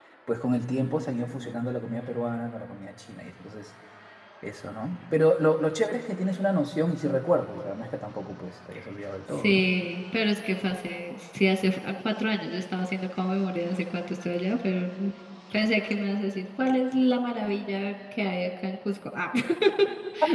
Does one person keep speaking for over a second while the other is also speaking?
No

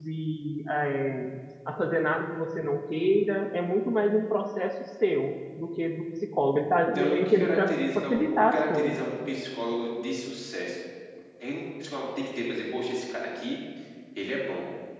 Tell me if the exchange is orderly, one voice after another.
No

